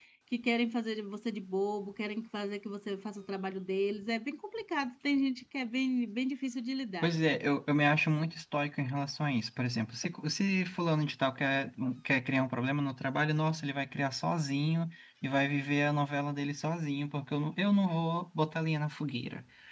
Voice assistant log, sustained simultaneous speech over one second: none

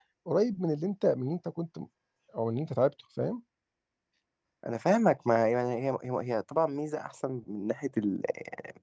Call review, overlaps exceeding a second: none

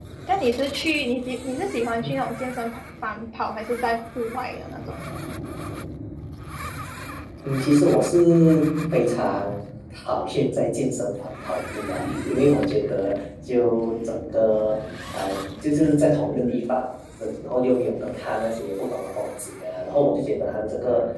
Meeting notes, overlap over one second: none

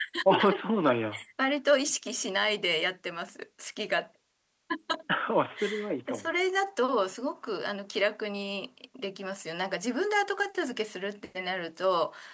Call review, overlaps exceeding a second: none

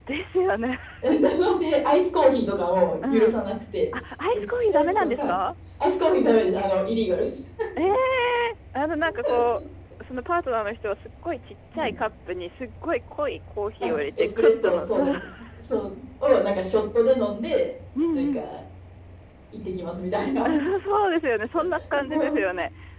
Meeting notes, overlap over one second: present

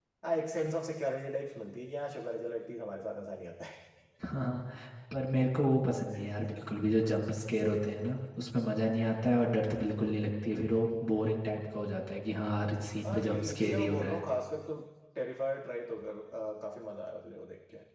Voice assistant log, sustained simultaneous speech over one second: present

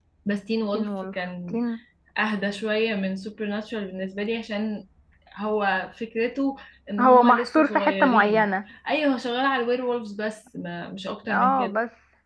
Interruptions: present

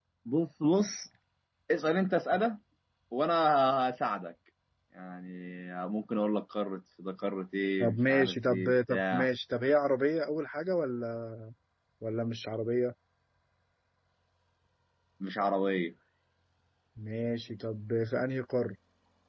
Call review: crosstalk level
present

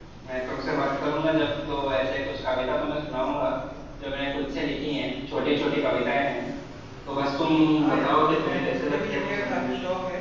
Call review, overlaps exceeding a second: present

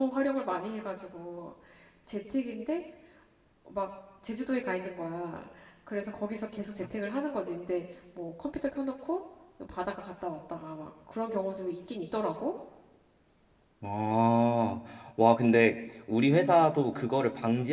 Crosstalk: none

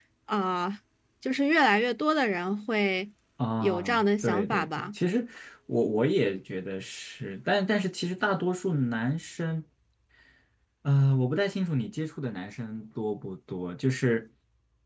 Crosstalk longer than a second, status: present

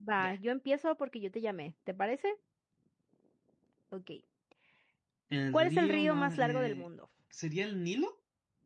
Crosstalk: present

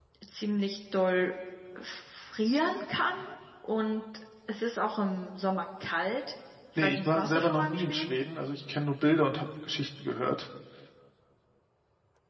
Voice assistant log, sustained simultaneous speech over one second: present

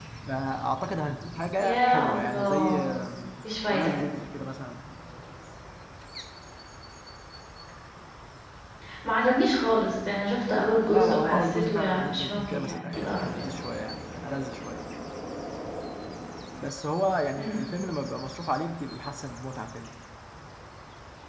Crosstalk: present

